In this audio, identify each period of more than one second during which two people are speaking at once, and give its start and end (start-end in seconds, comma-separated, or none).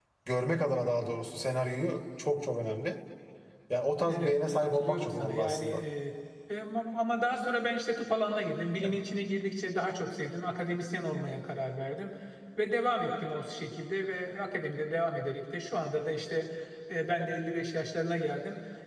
4.1-5.7